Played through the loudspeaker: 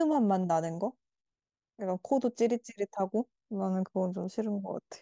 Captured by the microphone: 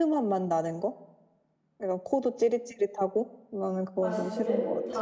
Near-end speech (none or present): present